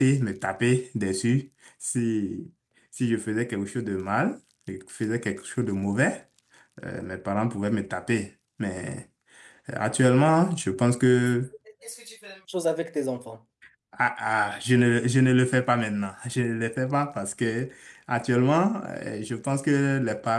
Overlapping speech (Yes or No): No